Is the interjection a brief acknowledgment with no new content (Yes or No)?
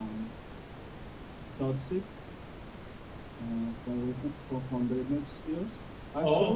No